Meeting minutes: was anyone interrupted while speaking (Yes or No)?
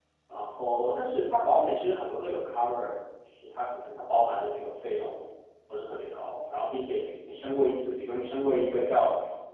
No